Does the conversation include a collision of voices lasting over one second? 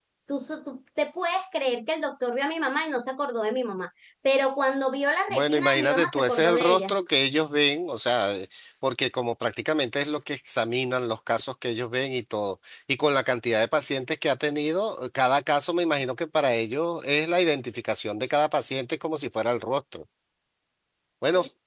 Yes, from 5.3 s

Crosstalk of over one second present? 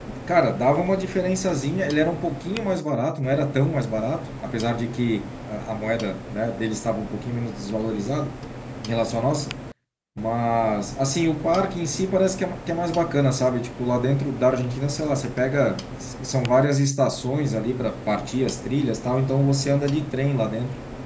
No

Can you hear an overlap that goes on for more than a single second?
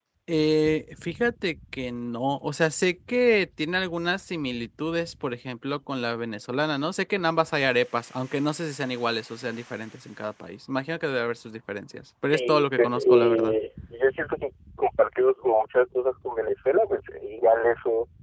Yes, from 12.2 s

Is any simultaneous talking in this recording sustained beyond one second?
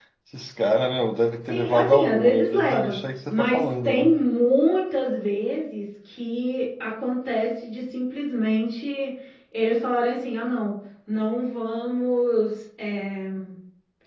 Yes, from 1.4 s

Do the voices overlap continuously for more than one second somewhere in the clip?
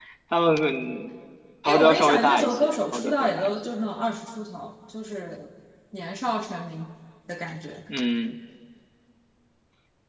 Yes, from 1.6 s

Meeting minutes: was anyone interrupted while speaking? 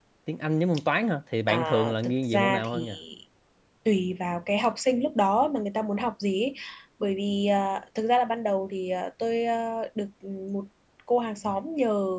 Yes, from 1.5 s

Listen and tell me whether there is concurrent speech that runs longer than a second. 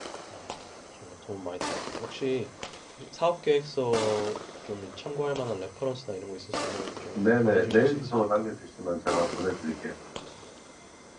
Yes, from 7.2 s

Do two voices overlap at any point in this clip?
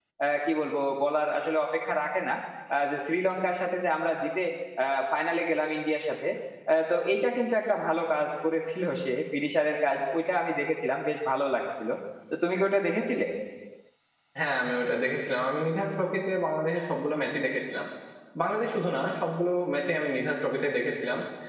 No

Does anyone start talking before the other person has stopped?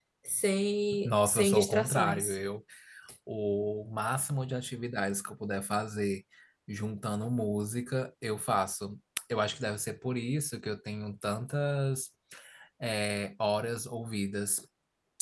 Yes, from 1.1 s

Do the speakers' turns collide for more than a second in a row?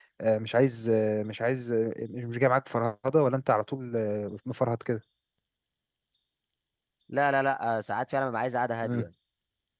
No

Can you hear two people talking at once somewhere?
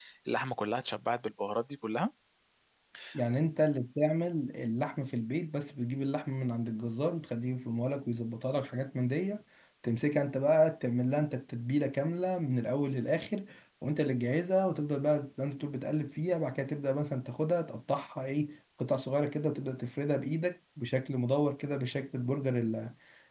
No

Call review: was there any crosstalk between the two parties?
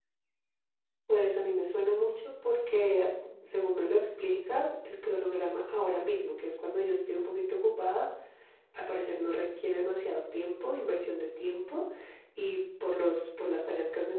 No

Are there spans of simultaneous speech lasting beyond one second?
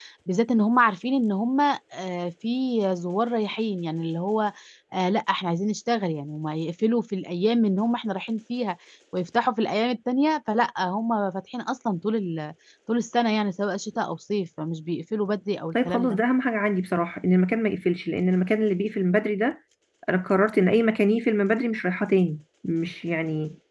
No

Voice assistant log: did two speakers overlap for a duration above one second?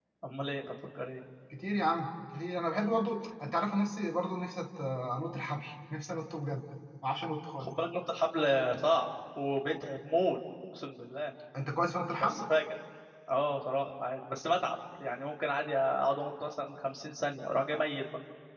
No

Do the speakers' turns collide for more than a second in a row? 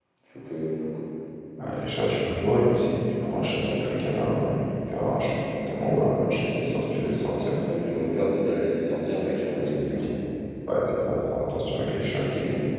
No

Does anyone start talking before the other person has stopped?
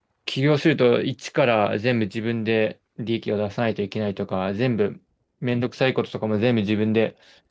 No

